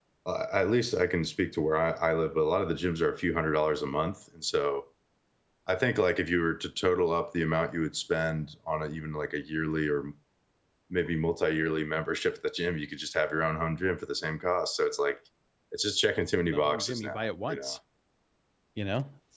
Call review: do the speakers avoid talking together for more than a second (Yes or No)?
No